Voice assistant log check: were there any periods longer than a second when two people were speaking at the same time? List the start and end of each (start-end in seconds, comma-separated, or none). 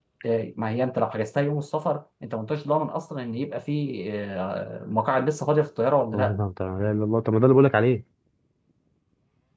none